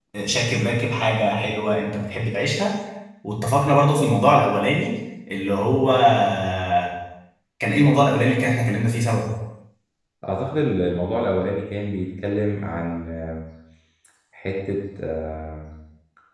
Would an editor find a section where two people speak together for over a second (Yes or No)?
No